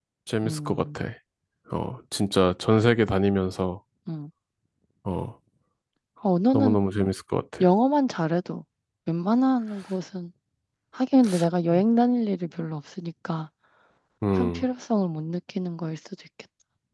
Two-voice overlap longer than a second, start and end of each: none

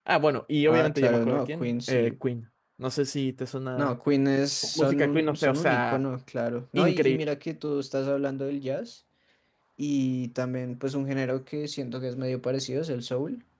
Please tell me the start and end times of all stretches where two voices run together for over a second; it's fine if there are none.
0.7-2.1, 4.6-6.0

